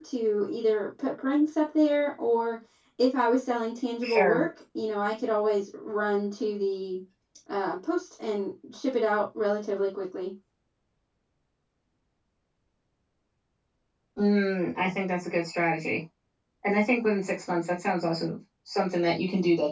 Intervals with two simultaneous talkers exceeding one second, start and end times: none

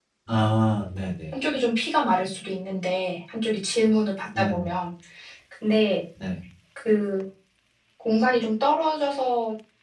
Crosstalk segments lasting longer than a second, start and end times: none

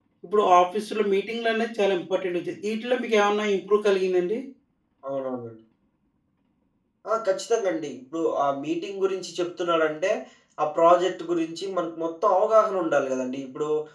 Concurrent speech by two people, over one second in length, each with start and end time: none

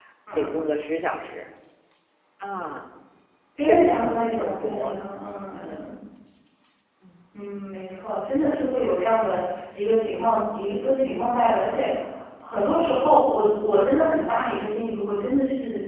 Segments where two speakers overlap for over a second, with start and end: 3.6-5.0

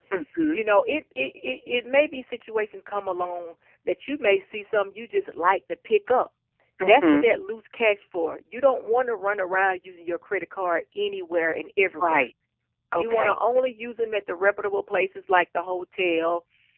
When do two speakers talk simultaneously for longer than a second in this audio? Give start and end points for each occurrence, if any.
none

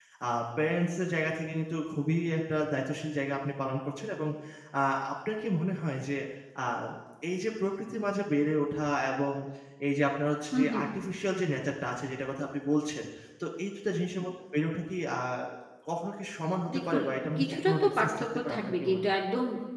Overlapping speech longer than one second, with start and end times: 17.4-19.0

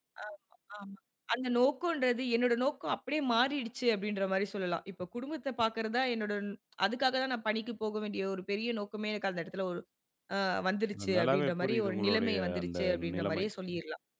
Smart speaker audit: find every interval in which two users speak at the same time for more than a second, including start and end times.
11.2-13.4

